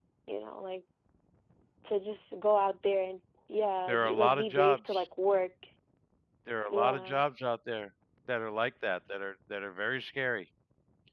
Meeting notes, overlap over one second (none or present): present